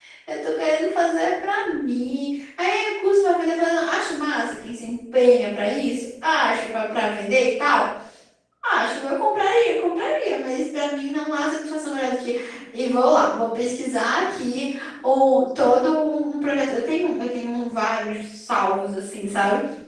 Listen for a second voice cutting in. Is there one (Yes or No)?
No